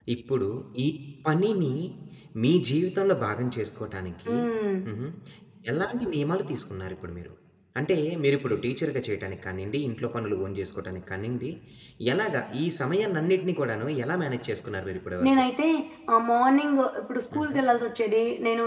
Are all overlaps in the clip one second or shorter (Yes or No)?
Yes